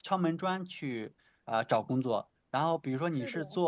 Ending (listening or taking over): listening